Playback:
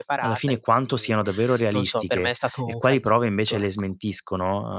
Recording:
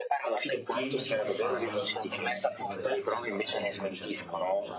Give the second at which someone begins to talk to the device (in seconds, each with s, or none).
0.5 s